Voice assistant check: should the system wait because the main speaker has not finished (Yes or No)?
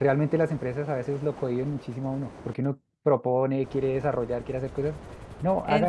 Yes